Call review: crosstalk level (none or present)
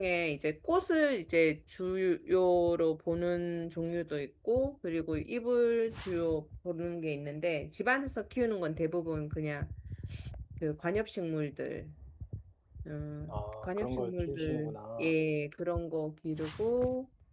present